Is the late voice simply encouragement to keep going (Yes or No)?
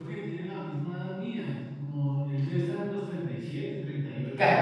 No